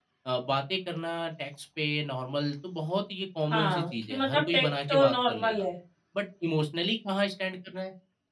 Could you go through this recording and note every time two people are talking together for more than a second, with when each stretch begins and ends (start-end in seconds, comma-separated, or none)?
3.5-5.7